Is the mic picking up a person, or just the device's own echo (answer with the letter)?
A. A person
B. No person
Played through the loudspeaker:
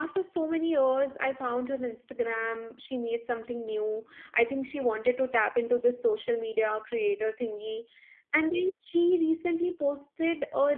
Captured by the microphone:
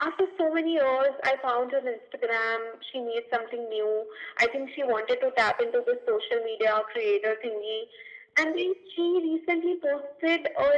B